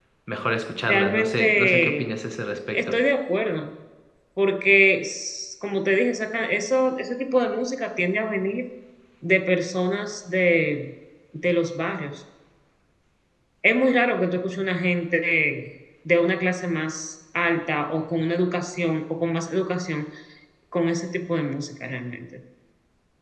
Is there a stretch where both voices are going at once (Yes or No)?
Yes